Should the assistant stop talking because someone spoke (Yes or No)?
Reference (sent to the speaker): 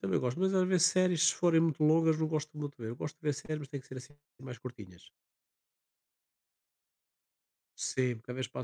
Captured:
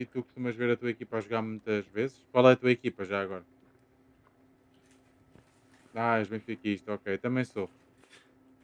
Yes